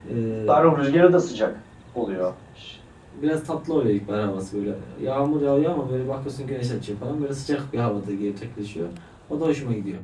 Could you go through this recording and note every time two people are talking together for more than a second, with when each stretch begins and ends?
none

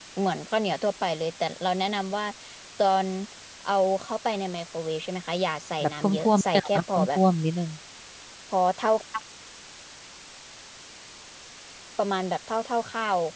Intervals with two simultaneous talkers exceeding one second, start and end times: 5.8-7.2

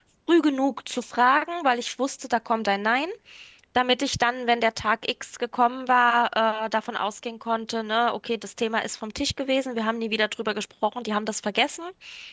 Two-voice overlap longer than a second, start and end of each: none

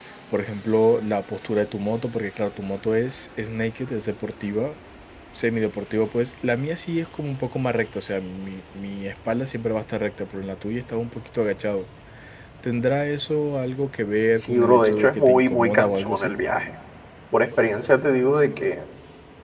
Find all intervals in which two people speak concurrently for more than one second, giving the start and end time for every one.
14.3-16.3

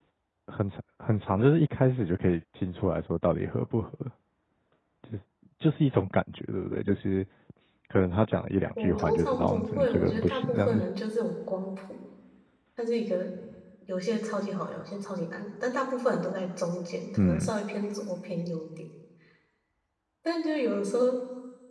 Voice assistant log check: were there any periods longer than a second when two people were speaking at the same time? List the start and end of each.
8.8-10.8

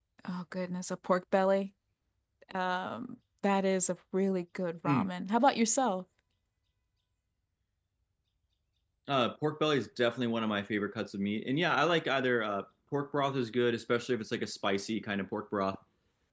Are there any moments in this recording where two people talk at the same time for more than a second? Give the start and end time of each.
none

